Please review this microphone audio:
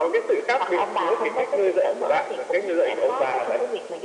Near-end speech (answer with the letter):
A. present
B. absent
B